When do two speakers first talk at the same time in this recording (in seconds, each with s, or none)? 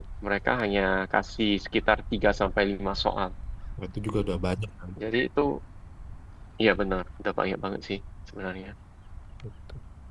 none